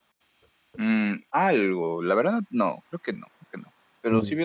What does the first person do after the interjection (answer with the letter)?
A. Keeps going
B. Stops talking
A